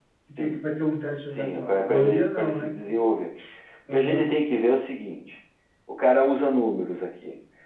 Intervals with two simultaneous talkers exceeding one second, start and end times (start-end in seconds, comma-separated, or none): 1.4-2.7